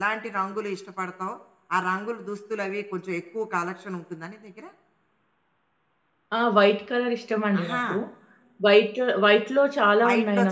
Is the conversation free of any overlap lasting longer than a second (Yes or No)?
Yes